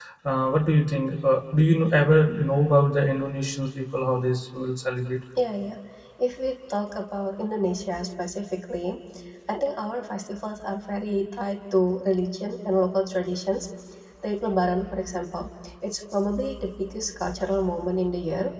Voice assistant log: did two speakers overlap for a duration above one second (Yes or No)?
No